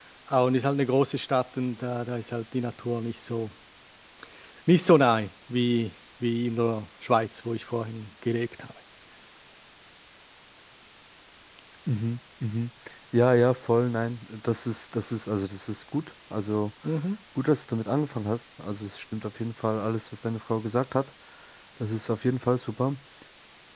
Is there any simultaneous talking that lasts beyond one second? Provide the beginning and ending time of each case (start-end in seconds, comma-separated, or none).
none